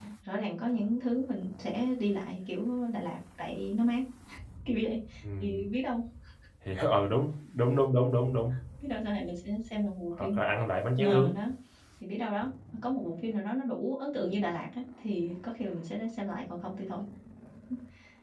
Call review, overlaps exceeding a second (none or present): none